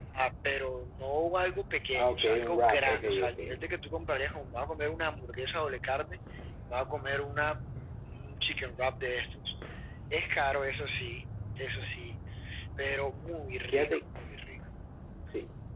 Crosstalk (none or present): present